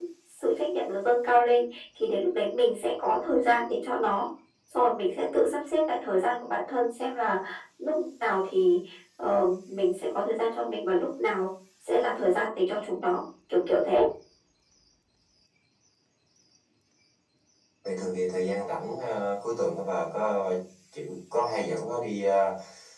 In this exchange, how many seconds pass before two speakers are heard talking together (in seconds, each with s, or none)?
none